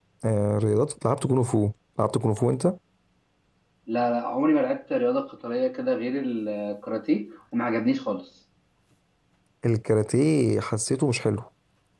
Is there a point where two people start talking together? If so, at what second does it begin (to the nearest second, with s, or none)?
none